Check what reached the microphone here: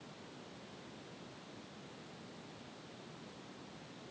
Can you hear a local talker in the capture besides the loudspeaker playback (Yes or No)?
No